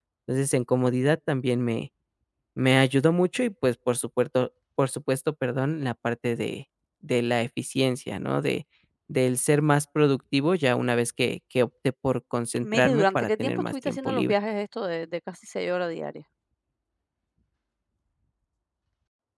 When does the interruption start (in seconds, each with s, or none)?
12.6 s